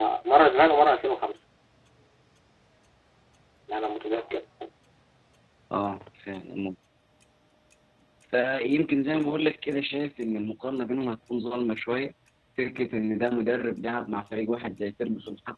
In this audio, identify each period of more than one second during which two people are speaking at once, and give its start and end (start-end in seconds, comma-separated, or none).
none